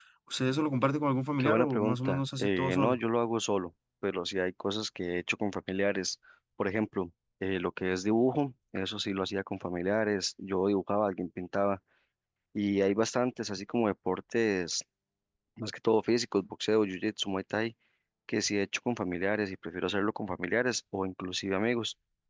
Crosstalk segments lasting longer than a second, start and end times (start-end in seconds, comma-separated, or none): 1.4-3.0